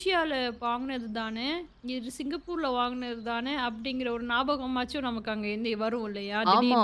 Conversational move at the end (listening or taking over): taking over